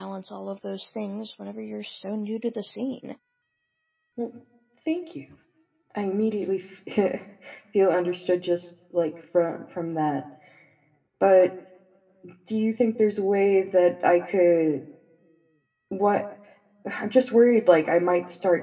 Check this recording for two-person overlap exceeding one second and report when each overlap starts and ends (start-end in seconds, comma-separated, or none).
none